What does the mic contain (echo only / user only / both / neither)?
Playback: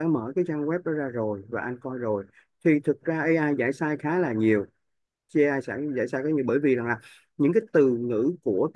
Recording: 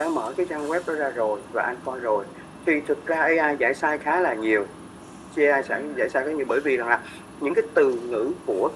echo only